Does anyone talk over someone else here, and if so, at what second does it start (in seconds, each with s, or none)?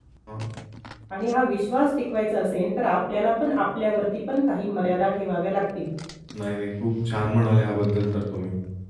none